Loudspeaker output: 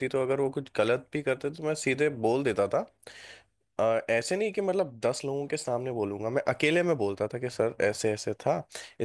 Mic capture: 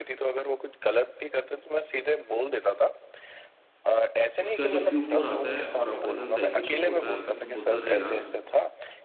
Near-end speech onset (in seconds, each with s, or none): 4.4 s